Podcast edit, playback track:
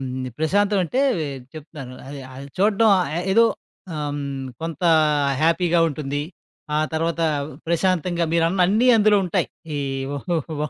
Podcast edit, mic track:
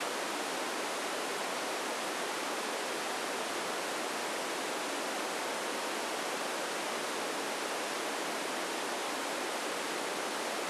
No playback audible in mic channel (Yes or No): Yes